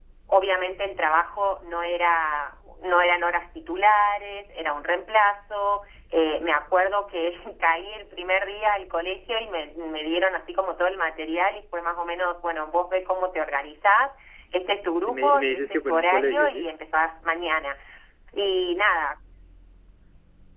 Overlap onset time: 15.1 s

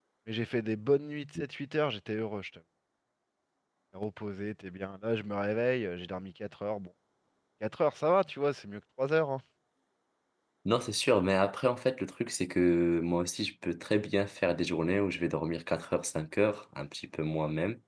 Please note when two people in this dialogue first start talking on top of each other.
none

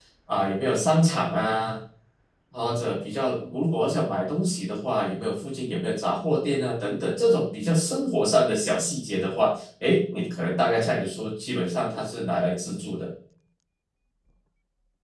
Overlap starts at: none

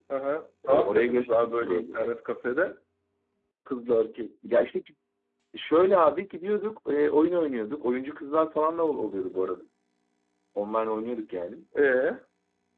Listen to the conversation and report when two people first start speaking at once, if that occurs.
0.7 s

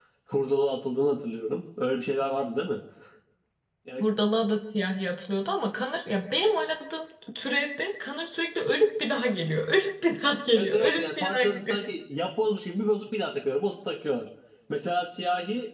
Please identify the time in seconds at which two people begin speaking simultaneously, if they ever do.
10.6 s

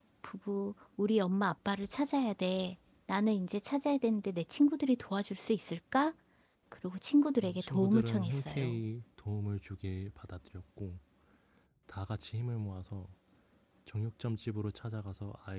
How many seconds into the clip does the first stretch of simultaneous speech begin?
7.4 s

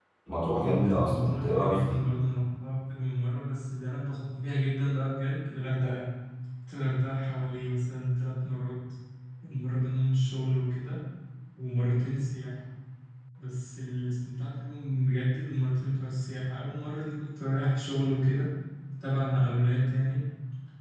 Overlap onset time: 0.6 s

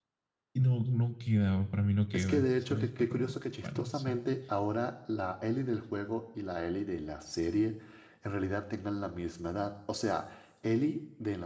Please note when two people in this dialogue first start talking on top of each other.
2.1 s

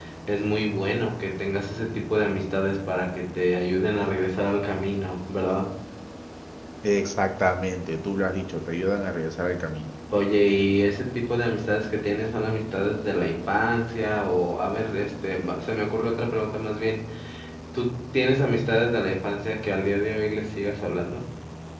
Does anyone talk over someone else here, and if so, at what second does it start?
none

